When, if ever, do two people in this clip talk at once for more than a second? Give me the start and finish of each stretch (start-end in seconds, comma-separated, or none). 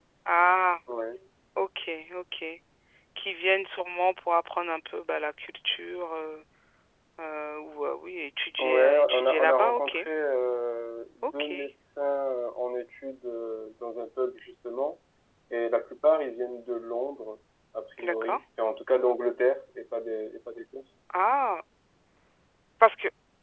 8.6-10.0